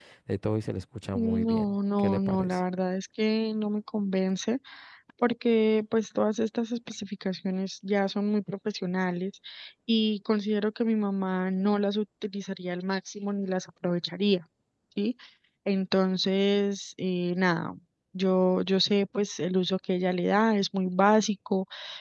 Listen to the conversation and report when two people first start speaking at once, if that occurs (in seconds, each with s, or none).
1.1 s